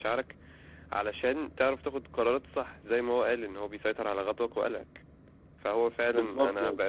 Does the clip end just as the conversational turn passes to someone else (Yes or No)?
No